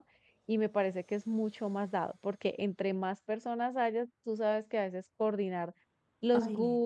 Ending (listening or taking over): listening